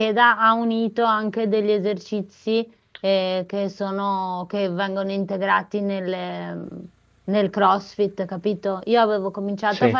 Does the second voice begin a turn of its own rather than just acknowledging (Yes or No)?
No